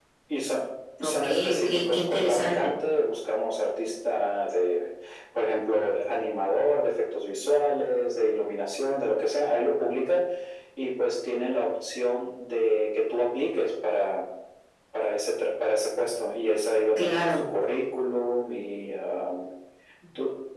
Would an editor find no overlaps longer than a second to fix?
No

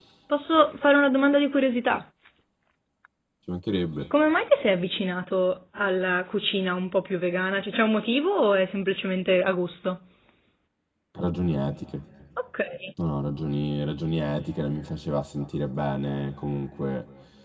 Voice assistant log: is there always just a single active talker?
Yes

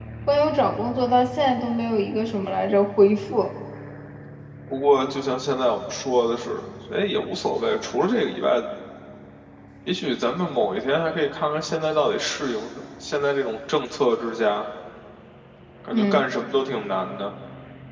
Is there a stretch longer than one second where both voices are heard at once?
No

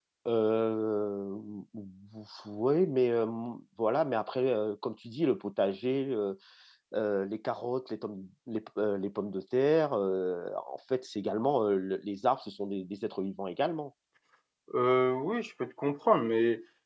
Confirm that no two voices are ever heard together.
Yes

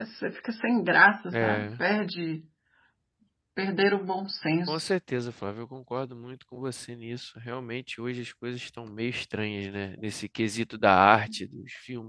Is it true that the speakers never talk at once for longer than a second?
Yes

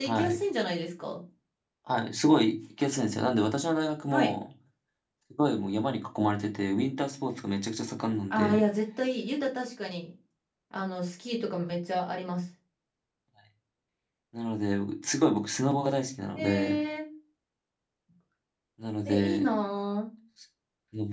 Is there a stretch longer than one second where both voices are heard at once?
No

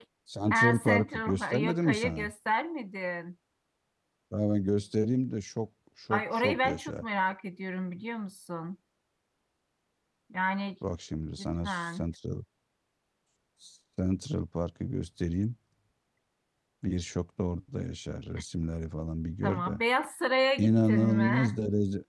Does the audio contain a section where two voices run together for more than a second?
Yes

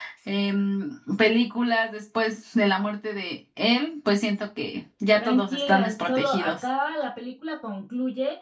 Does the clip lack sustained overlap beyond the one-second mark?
No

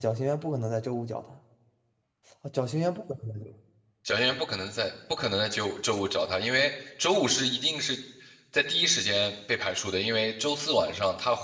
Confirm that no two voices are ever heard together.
Yes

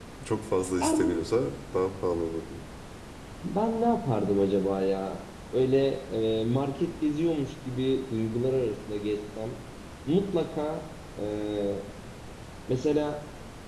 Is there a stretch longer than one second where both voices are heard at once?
No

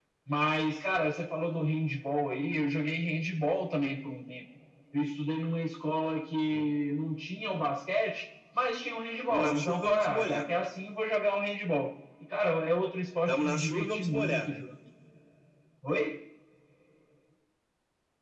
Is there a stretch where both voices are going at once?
Yes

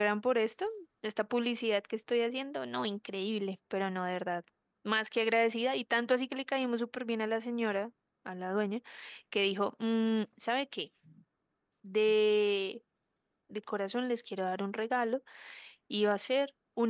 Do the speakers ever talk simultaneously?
No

